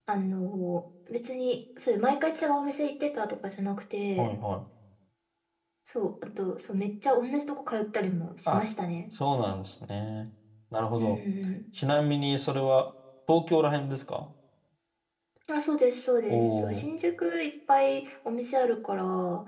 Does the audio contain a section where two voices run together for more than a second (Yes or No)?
No